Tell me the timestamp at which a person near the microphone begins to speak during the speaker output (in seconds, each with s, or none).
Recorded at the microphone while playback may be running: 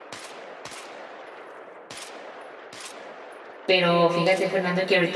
3.6 s